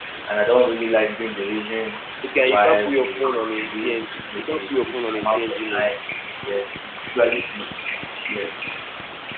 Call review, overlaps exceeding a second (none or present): present